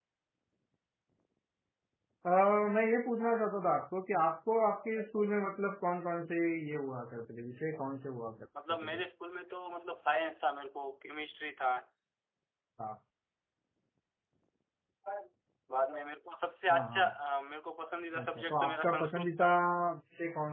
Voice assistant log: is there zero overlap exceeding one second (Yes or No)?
No